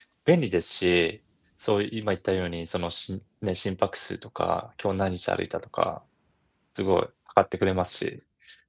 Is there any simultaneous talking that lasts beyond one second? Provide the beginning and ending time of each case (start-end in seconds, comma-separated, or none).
none